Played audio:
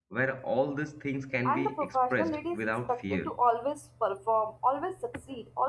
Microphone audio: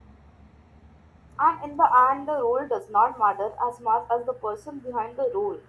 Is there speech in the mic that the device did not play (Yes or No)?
Yes